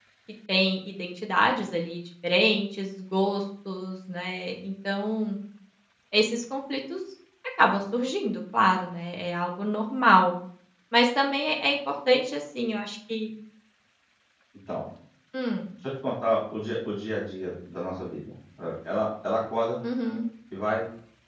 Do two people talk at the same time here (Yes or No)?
No